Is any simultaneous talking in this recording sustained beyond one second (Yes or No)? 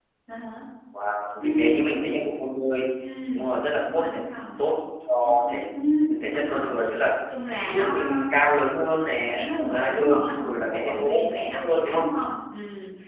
Yes